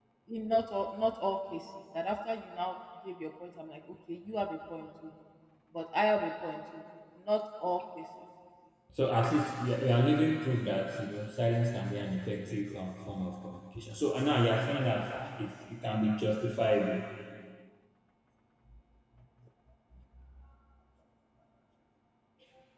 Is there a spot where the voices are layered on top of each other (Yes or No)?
No